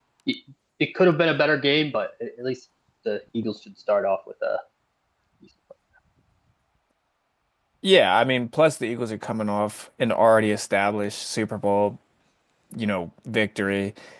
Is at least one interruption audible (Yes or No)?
No